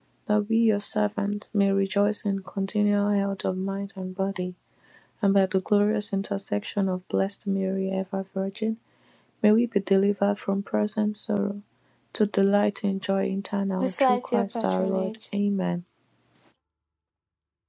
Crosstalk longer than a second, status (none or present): present